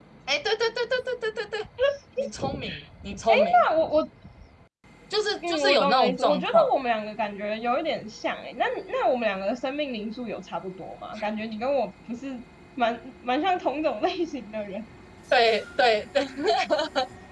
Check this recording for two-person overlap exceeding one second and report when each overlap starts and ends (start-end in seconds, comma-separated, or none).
5.5-6.7